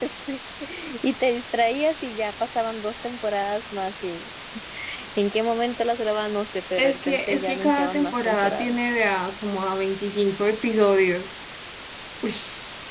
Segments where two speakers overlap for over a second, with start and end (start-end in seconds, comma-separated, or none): 6.8-8.8